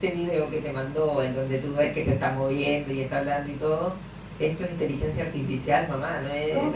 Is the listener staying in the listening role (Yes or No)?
No